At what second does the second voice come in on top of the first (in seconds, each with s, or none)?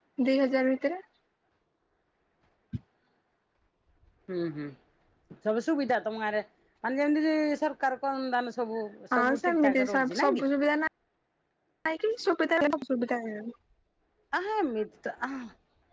9.1 s